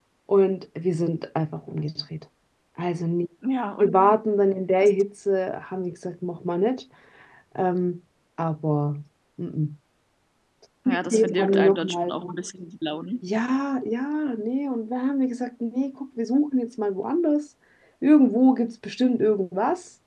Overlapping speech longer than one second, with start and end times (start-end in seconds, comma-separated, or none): 10.9-12.1